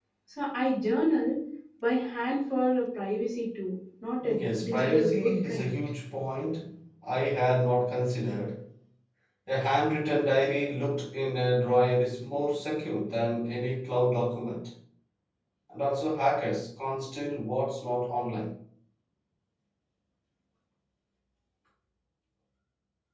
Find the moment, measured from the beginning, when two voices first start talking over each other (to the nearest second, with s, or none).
4 s